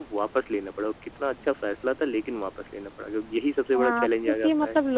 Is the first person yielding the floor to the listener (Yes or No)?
Yes